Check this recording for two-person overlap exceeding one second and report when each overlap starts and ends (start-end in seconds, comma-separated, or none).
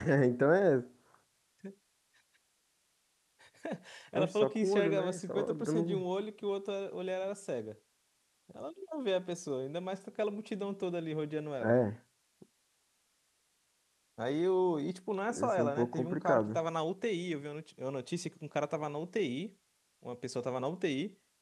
4.2-6.0, 15.4-16.6